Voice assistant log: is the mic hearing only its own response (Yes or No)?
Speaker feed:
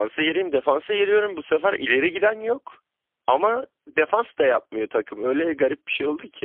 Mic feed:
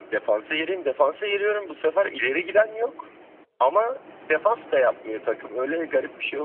Yes